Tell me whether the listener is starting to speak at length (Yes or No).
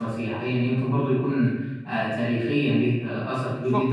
Yes